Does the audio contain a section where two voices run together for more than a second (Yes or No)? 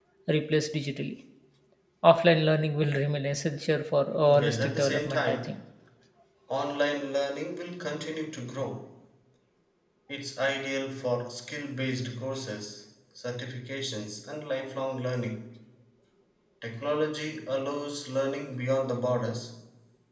Yes